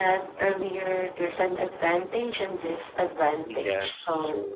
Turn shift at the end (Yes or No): Yes